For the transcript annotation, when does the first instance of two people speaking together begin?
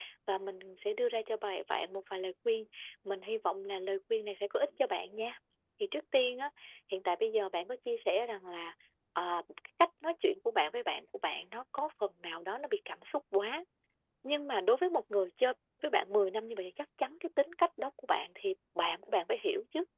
none

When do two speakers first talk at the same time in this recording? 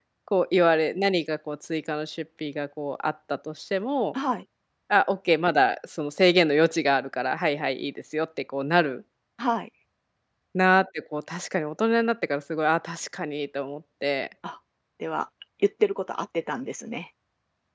none

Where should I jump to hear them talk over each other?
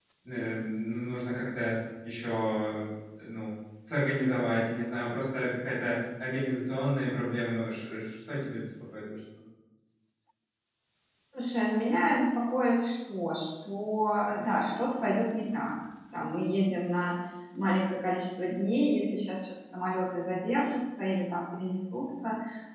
none

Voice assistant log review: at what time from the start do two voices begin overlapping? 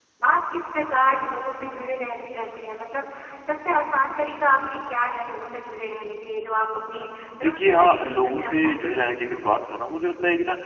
7.4 s

